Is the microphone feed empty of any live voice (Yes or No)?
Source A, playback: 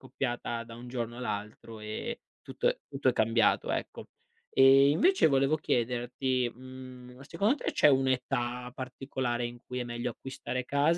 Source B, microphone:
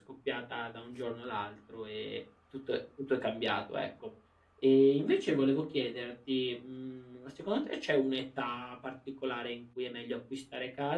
Yes